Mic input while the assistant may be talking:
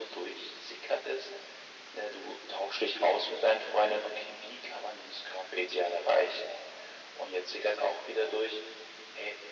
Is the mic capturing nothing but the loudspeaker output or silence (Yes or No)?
Yes